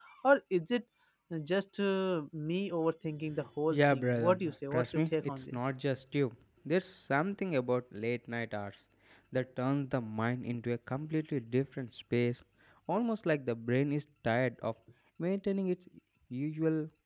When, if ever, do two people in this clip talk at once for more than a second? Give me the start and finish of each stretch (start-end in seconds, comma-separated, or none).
3.7-5.6